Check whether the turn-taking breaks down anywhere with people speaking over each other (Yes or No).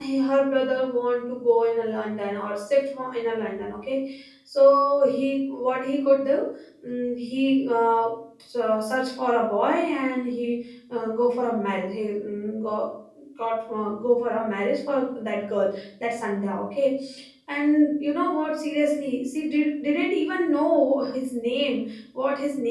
No